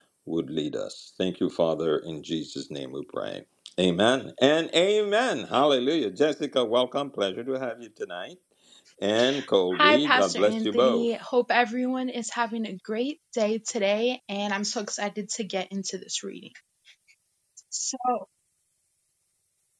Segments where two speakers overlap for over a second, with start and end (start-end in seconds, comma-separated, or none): 9.8-11.1